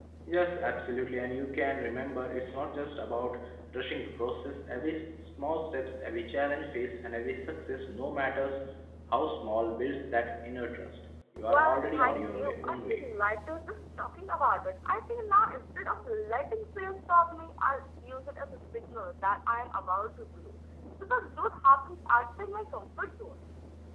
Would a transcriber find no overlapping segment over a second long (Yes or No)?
No